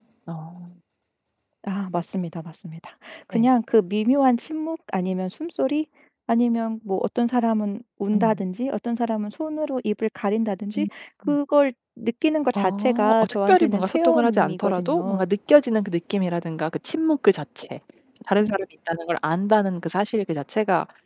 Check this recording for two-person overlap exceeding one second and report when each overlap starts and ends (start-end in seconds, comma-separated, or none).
12.5-15.2